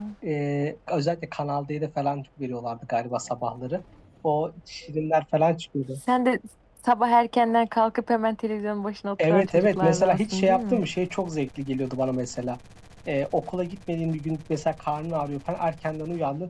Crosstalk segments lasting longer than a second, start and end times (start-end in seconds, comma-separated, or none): 9.3-10.8